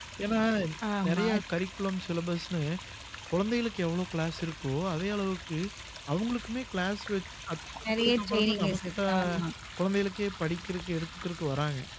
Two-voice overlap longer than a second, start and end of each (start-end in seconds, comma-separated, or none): 7.8-9.2